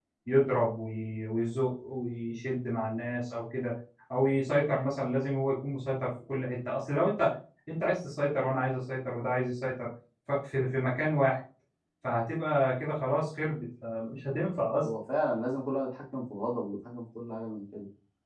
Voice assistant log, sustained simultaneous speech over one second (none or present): none